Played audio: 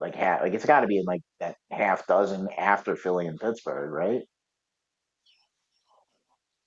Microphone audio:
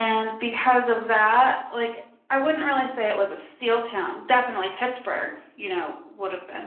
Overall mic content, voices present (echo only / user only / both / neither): user only